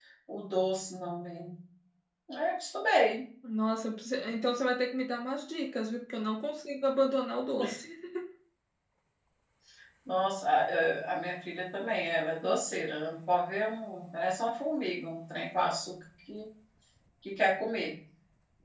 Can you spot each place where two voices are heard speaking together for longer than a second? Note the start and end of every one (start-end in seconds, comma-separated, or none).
none